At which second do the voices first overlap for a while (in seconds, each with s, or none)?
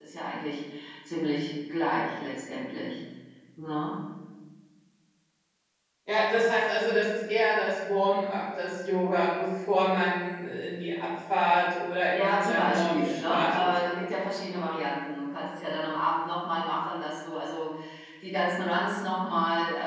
12.1 s